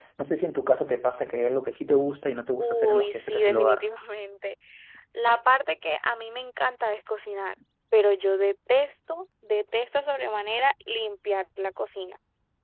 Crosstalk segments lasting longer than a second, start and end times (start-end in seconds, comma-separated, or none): 2.6-3.8